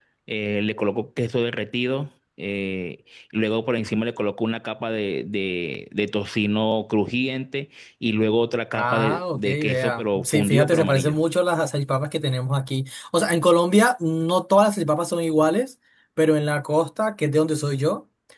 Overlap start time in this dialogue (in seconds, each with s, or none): 8.7 s